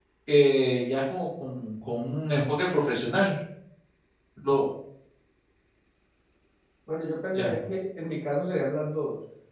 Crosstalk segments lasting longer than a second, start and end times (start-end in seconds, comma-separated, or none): none